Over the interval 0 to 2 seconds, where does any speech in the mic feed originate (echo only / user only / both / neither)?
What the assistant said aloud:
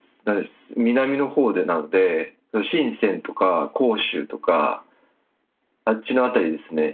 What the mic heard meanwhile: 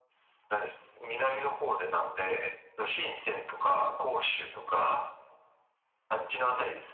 echo only